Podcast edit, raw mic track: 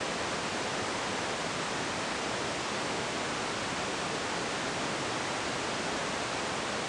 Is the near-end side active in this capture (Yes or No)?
No